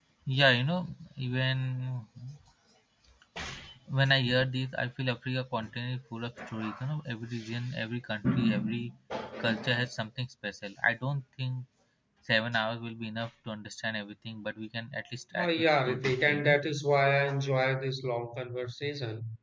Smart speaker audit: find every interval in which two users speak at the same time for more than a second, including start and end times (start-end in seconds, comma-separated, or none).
15.3-16.6